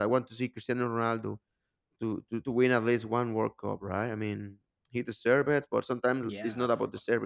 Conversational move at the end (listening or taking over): listening